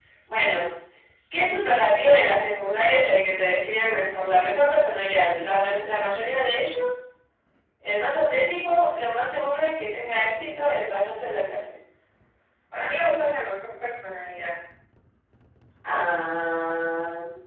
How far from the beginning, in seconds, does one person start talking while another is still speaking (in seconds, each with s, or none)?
none